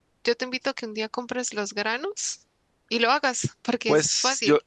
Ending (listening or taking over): taking over